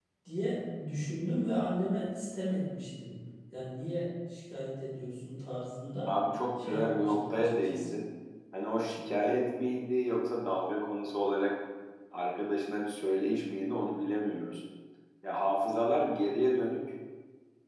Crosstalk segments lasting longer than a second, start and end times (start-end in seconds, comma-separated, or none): 6.6-7.9